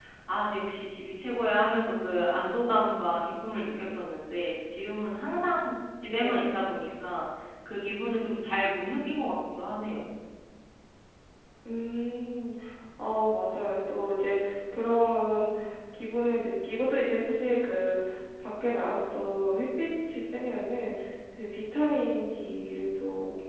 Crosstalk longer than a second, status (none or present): none